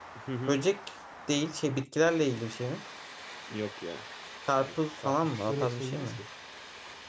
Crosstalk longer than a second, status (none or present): present